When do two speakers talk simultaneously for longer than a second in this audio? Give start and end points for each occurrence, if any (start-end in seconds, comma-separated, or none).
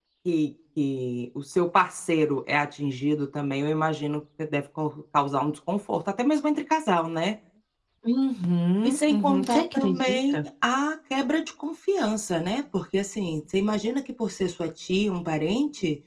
8.8-10.4